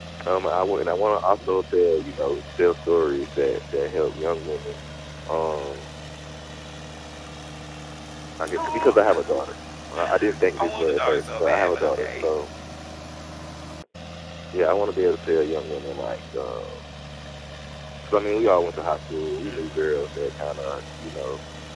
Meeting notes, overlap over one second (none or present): present